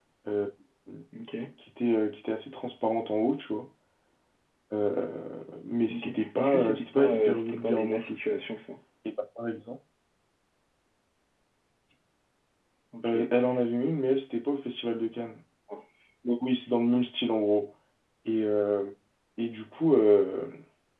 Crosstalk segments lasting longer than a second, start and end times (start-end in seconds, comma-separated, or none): 5.9-8.4